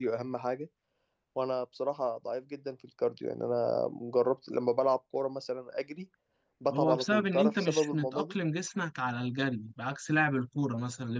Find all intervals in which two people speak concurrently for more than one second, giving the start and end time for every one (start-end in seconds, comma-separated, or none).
6.7-8.3